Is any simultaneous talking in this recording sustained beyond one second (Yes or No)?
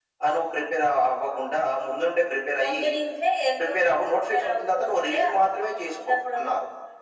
Yes